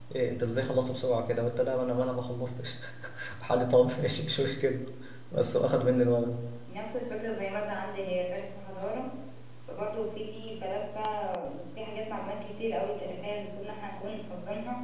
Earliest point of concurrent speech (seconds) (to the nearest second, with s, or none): none